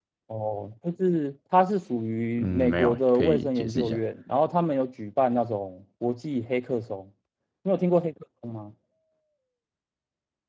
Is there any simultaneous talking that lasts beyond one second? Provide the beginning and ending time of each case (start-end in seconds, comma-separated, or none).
2.4-4.0